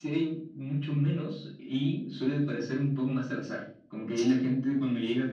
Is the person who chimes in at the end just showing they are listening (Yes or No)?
Yes